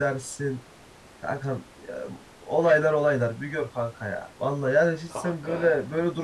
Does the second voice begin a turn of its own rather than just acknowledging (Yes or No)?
No